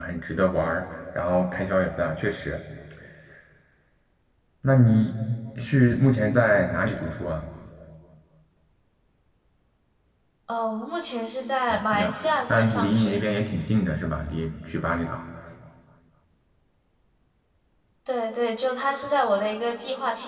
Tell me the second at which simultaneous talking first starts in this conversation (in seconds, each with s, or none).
11.7 s